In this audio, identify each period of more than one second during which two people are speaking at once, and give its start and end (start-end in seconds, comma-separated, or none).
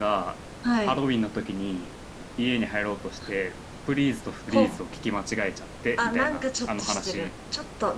6.0-7.3